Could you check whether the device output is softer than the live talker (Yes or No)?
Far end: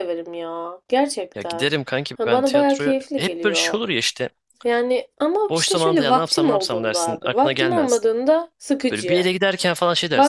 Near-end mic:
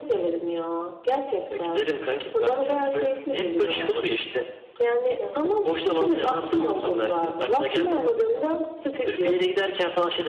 No